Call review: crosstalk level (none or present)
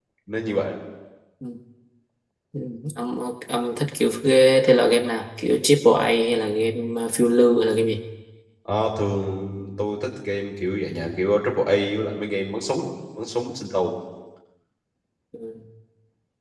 none